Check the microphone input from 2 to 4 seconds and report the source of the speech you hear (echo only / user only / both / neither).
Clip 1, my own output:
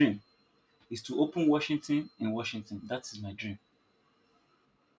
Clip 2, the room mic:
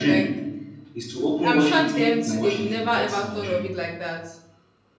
both